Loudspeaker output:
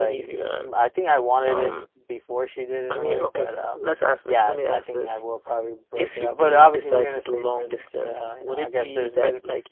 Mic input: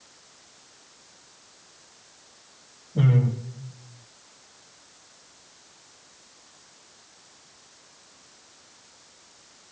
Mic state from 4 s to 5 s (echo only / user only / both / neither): neither